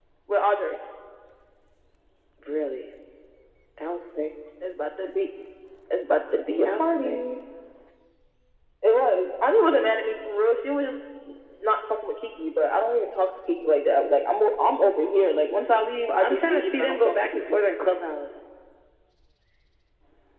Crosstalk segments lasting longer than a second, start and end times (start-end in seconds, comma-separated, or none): 16.2-17.6